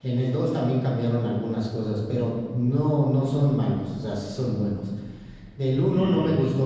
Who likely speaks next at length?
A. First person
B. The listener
A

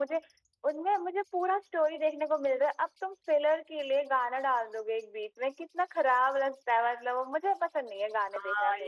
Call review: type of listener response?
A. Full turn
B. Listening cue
A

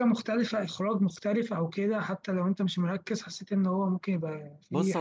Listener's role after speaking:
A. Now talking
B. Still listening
A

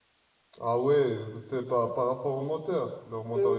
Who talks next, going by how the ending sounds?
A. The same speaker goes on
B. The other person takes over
B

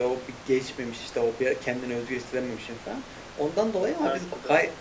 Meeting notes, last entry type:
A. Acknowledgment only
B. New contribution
A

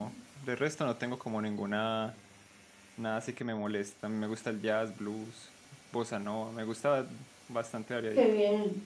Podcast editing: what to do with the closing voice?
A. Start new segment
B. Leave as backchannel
A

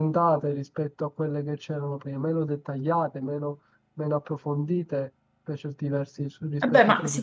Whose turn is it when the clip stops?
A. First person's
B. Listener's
B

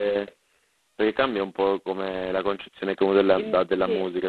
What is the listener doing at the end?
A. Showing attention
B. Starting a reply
A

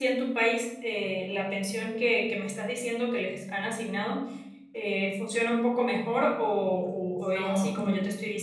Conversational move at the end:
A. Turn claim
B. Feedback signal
A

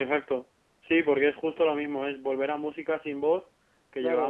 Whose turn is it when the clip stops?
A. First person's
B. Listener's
B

